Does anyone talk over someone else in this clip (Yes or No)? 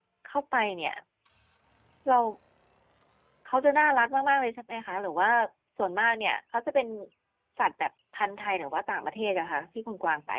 No